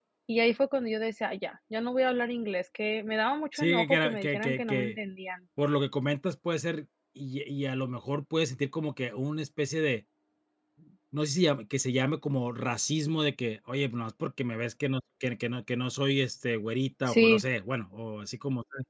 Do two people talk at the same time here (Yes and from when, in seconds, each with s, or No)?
Yes, from 3.6 s